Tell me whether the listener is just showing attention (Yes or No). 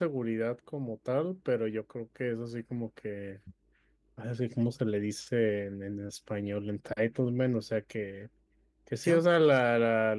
Yes